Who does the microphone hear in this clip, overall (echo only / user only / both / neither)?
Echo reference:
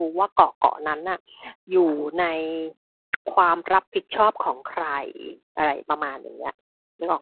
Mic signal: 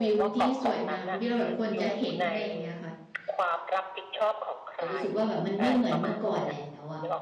both